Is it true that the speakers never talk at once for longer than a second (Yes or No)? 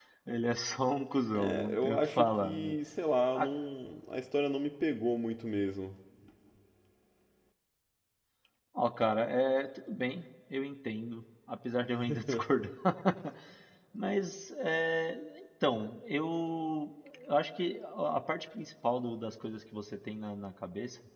No